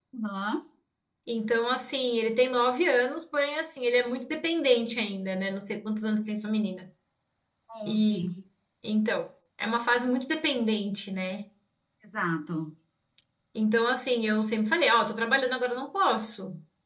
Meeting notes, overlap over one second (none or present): none